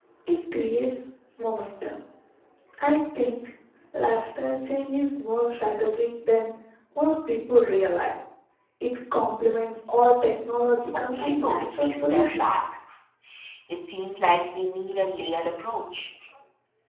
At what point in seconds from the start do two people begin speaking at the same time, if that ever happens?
11 s

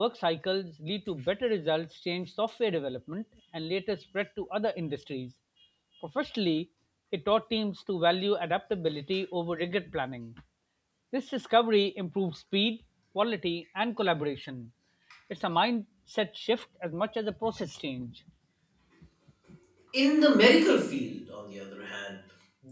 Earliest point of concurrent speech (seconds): none

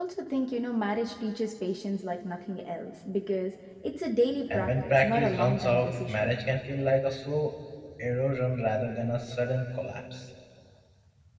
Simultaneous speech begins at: 4 s

